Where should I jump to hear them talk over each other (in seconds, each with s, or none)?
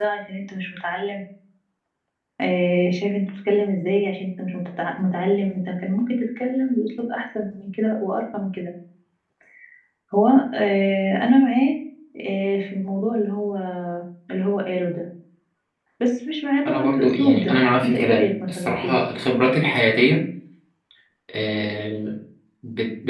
16.7 s